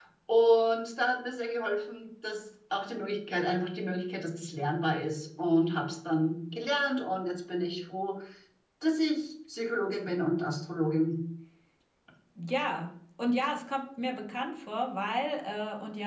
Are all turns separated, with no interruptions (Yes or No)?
Yes